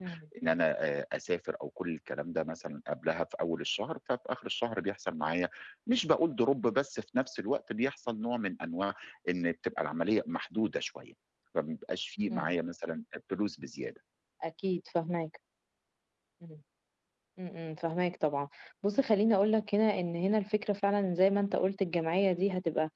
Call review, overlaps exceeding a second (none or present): none